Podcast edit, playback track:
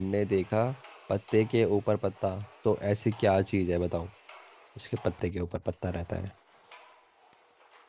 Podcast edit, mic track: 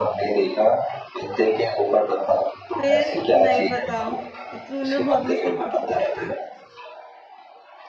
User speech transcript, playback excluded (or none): फिर नहीं पता ये तो तूने तो बहुत मुश्किल पूछ